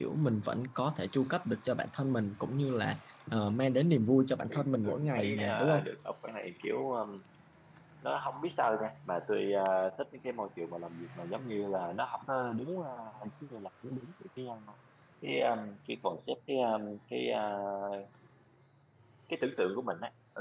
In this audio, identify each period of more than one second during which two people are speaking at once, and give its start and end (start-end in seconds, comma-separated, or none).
4.5-5.9